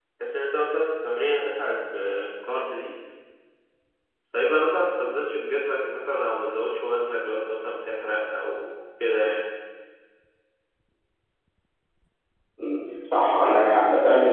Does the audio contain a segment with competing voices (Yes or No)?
No